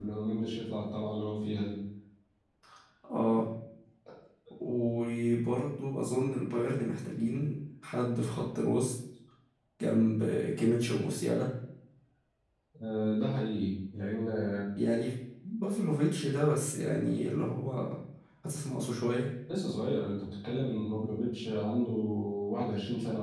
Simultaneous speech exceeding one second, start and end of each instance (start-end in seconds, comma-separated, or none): none